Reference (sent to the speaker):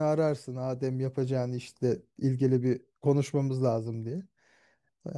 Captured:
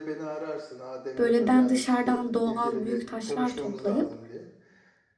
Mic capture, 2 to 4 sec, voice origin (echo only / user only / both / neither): both